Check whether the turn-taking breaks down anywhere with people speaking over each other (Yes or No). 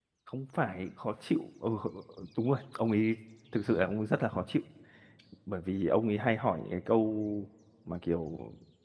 No